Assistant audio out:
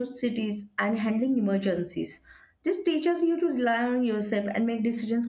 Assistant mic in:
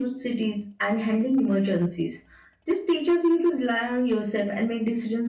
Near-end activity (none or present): none